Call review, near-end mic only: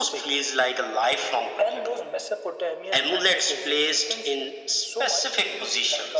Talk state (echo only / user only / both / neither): echo only